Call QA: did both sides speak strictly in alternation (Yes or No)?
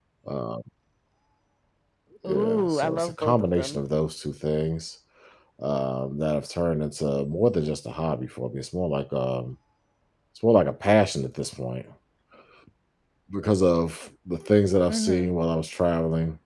No